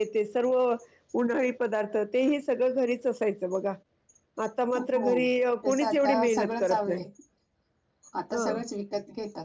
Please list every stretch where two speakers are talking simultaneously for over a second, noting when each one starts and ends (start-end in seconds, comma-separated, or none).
5.6-7.0